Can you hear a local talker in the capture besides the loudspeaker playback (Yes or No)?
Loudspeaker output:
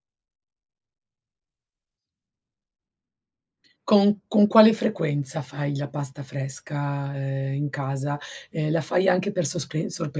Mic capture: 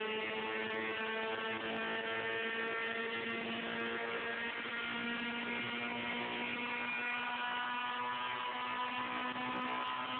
No